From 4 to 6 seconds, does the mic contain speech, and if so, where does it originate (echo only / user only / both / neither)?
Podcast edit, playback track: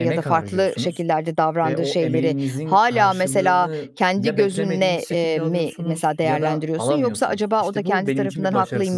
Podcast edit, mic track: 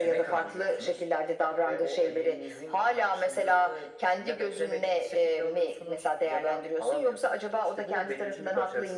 echo only